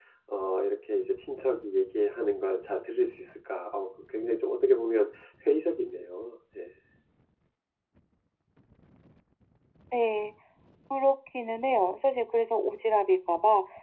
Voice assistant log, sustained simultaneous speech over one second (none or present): none